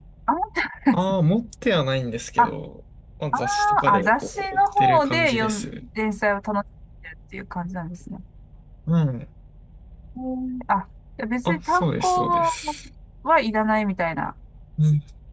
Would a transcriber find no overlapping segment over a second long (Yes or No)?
No